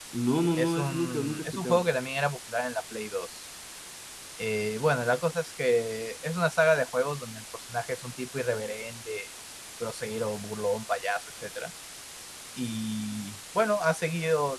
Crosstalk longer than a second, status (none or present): present